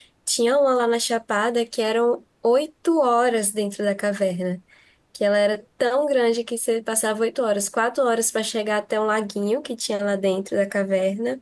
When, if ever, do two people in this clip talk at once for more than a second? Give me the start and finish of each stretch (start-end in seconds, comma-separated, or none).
none